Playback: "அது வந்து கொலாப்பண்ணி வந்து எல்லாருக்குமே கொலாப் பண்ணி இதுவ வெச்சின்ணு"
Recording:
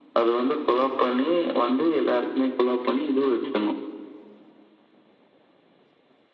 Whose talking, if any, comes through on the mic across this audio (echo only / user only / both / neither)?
echo only